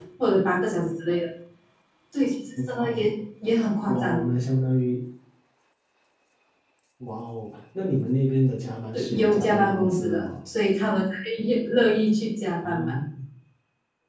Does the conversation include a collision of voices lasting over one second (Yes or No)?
Yes